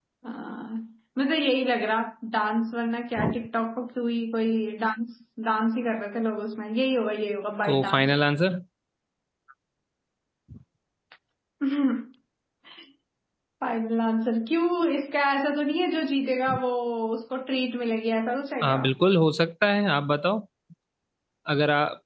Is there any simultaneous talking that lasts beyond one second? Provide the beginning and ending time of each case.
none

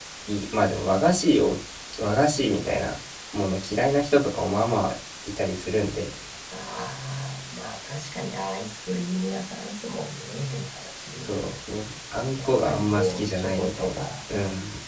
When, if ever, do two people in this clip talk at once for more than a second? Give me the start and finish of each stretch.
12.3-14.0

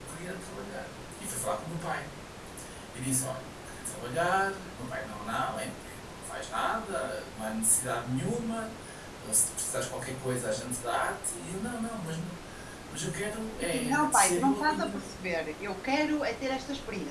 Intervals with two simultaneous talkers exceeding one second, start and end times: 13.6-15.0

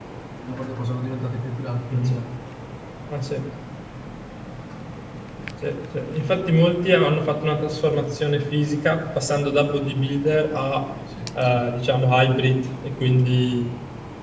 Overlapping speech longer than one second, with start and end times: none

